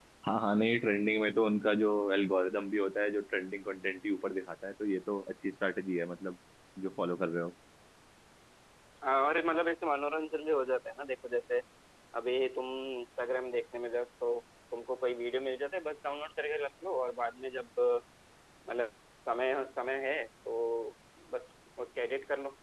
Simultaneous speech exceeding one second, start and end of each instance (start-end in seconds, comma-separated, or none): none